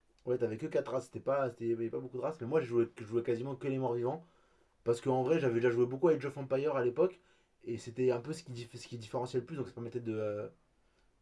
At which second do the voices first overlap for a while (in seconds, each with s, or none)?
none